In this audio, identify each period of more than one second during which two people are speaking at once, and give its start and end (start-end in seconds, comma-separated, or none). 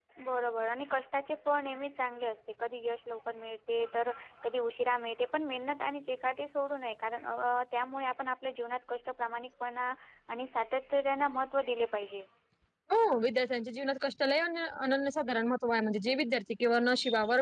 none